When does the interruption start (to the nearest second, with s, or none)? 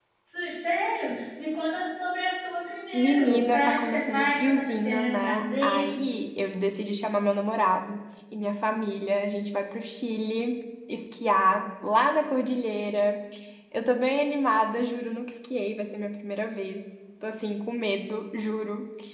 3 s